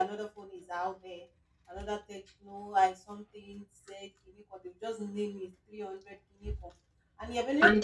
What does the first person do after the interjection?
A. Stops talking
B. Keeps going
B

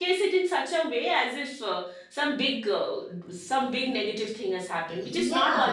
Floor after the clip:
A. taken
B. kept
A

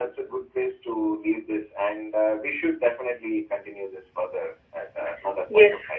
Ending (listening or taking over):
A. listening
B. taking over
B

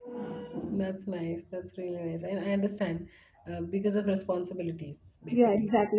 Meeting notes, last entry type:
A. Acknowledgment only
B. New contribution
B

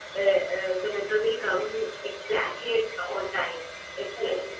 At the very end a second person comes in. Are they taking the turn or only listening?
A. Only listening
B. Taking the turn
A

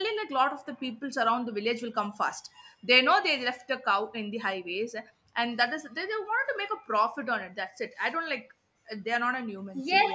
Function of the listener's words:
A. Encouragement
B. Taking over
B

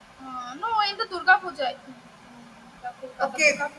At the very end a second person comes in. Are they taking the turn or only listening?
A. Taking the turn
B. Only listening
A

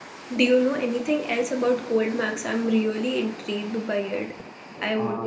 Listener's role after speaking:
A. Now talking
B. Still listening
A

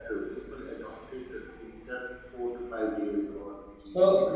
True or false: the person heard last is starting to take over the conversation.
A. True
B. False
A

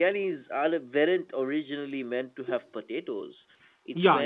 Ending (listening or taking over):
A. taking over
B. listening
A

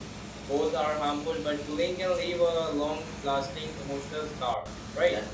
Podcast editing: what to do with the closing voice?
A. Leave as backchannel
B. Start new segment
A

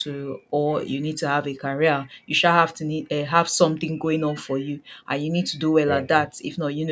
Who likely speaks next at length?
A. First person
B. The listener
A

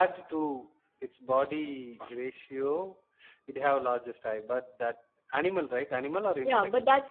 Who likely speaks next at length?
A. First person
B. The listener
B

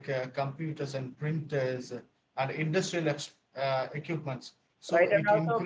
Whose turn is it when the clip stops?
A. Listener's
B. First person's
A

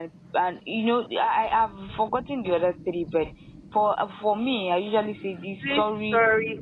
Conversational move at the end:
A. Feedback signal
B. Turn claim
B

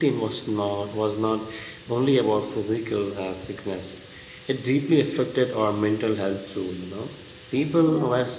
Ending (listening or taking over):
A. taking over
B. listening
B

